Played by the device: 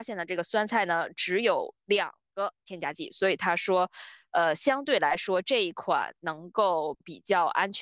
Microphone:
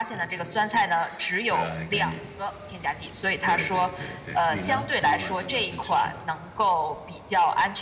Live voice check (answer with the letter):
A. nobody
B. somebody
B